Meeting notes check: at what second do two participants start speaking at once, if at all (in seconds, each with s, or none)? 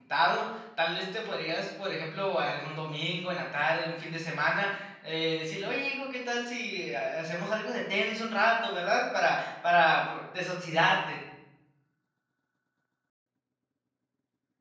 none